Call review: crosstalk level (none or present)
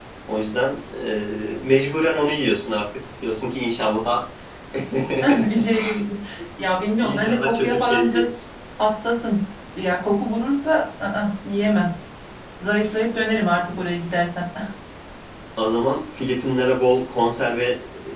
present